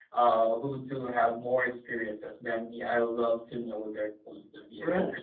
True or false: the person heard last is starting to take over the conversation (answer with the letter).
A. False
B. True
A